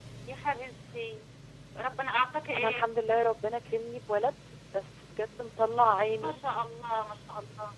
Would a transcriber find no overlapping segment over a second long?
Yes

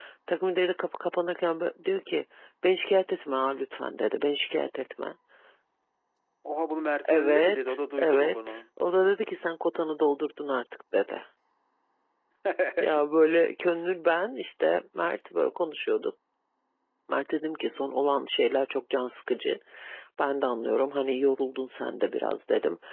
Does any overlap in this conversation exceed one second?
Yes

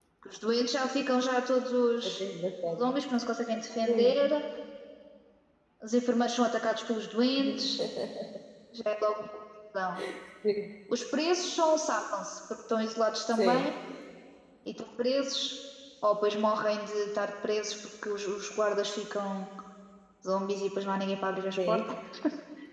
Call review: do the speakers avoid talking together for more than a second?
Yes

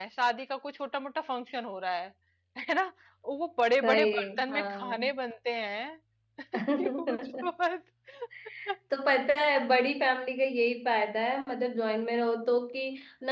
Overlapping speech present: Yes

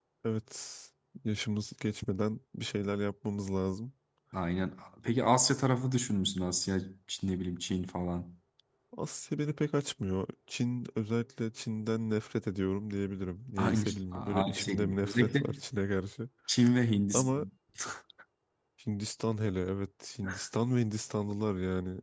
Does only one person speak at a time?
No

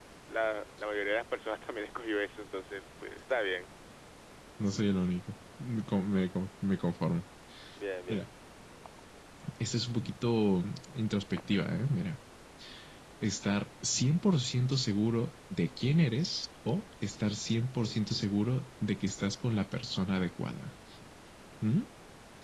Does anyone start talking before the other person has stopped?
No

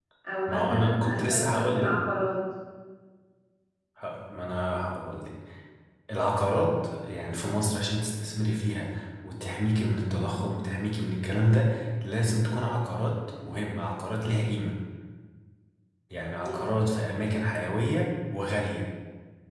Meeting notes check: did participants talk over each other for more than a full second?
Yes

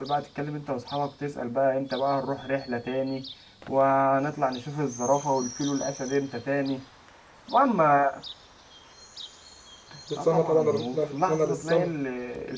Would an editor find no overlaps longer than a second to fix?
No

